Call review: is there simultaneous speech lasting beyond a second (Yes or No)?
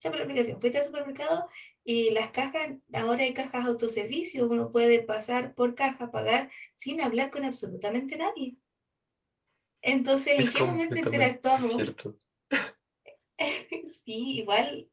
Yes